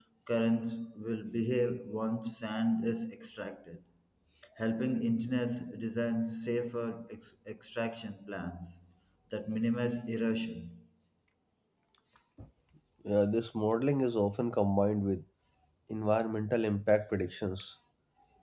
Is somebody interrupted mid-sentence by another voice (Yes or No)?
No